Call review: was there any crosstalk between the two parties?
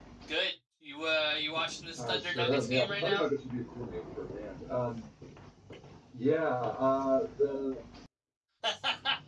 Yes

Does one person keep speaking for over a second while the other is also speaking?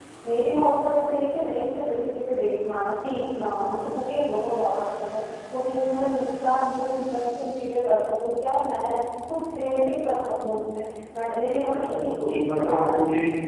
Yes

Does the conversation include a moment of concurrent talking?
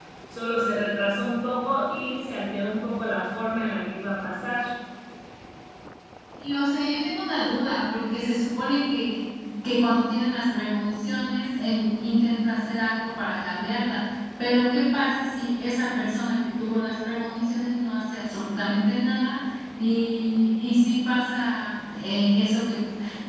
No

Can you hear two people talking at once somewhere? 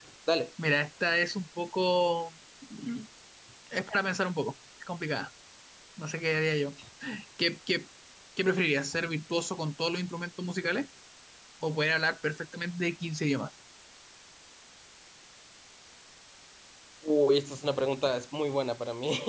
No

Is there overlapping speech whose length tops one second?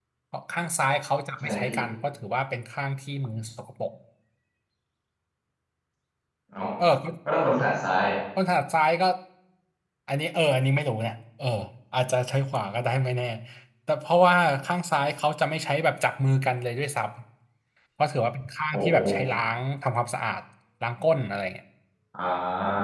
No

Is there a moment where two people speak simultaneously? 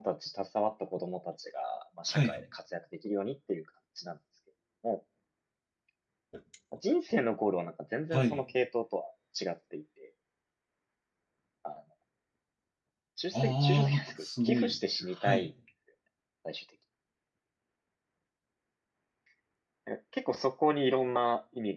Yes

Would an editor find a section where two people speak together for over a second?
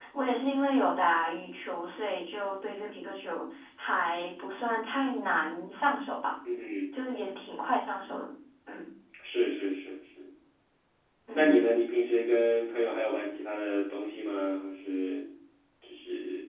No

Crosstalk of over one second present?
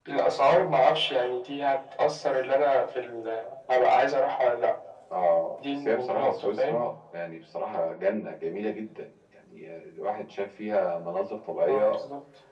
Yes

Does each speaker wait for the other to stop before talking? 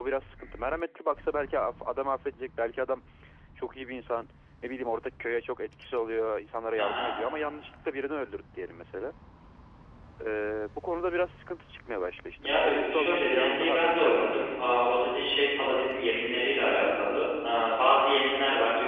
No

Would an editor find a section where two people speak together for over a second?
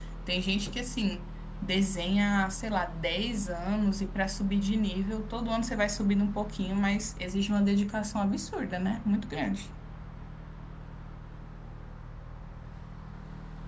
No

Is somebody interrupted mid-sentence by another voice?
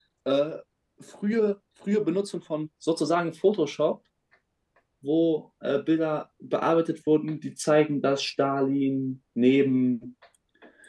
No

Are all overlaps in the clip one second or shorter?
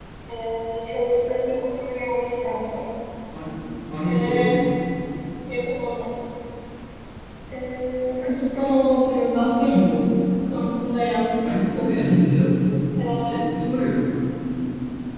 Yes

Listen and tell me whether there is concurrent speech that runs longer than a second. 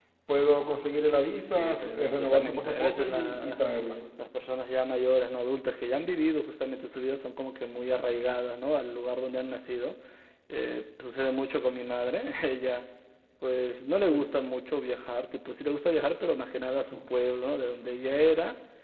Yes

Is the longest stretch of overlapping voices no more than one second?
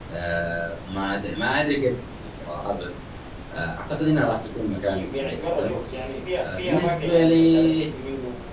No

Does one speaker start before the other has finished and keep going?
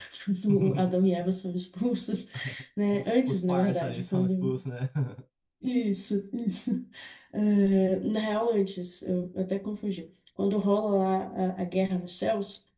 Yes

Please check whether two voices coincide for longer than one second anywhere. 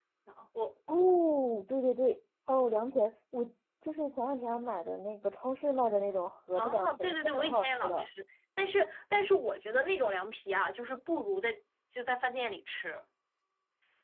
Yes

